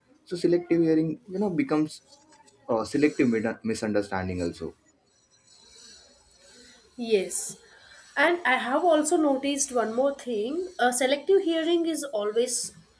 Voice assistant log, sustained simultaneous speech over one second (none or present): none